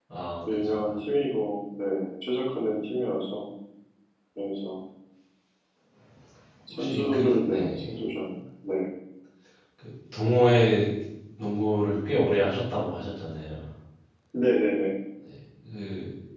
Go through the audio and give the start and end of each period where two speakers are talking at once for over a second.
6.7-7.9

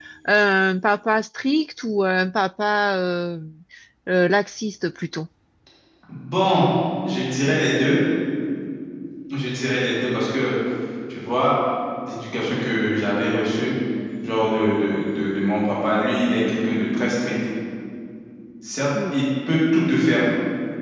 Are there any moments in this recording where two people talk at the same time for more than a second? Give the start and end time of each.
none

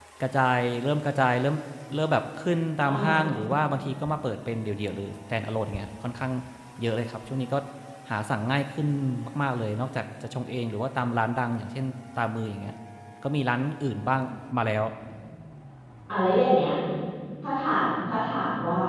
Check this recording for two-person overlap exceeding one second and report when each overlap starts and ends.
none

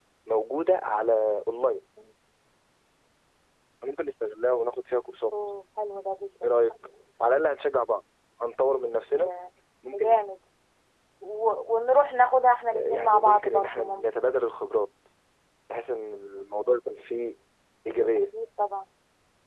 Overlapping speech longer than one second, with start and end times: 12.7-14.1

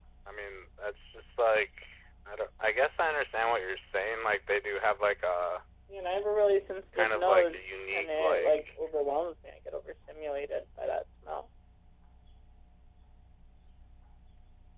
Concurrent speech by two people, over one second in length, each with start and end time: 7.0-8.6

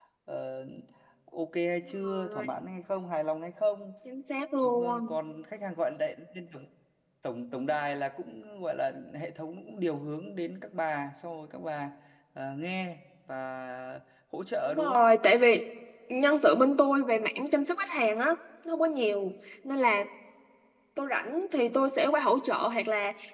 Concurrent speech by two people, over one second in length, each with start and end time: none

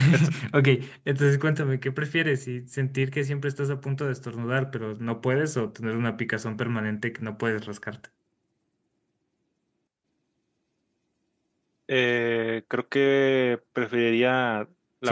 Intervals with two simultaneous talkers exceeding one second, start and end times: none

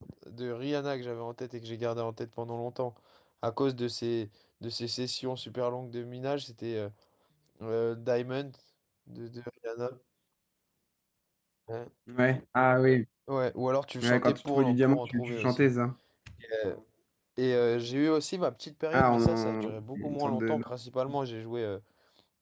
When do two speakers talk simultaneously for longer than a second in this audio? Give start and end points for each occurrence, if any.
14.0-15.7, 18.9-20.6

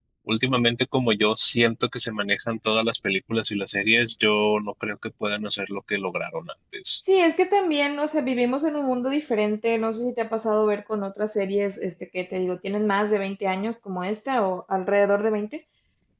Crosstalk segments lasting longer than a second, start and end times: none

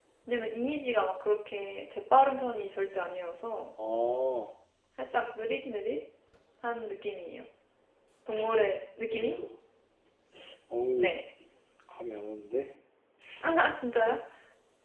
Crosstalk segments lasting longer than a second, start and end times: none

